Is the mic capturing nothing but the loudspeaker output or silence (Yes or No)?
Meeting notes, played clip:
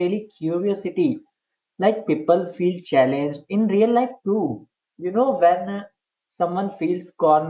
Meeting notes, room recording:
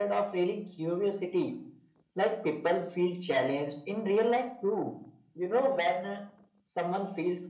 Yes